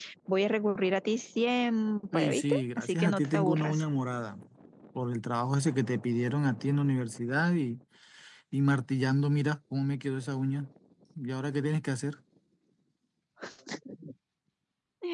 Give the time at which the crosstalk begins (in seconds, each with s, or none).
2.1 s